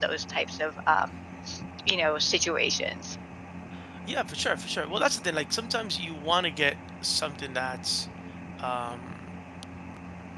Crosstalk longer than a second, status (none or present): none